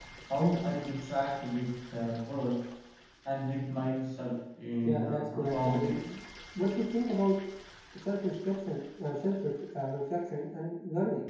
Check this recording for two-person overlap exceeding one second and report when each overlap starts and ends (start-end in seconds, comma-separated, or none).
4.8-6.2